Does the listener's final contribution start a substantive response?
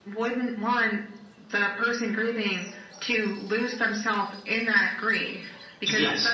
No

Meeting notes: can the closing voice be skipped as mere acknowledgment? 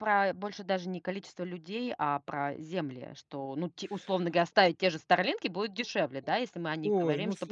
No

